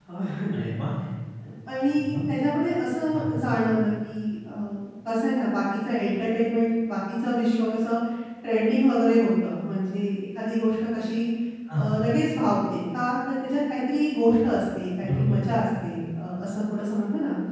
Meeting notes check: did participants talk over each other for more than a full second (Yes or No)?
No